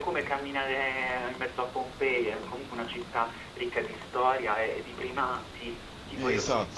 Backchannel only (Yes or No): No